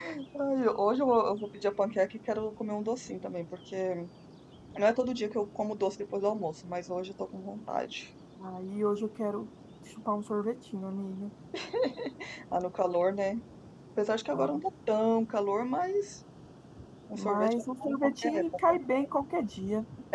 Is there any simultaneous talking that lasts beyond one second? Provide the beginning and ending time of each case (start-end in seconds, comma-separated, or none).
17.2-18.8